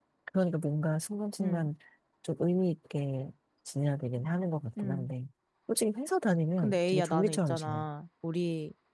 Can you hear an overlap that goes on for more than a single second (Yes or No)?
Yes